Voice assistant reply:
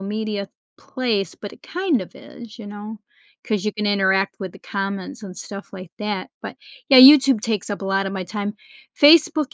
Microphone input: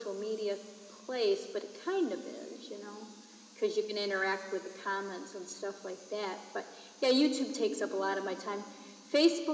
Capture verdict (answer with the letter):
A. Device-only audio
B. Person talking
A